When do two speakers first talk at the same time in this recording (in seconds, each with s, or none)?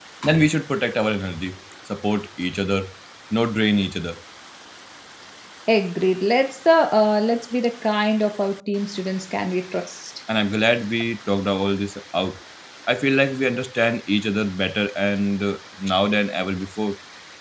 none